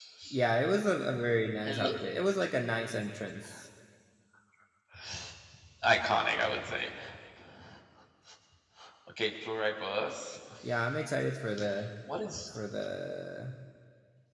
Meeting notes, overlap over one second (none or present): none